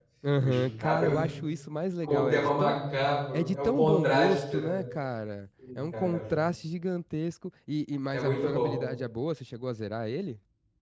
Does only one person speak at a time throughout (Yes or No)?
No